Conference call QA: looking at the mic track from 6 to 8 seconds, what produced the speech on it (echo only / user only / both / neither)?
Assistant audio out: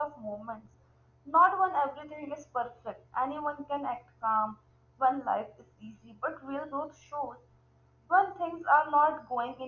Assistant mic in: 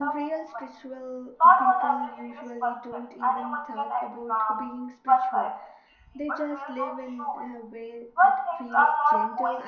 both